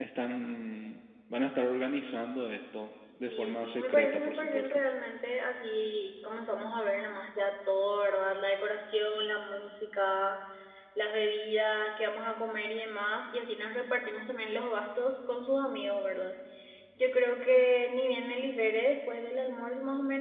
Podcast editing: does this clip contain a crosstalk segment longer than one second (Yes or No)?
Yes